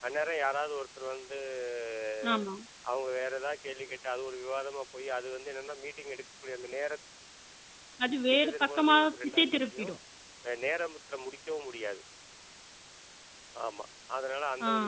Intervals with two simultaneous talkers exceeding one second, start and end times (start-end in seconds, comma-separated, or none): 8.3-9.9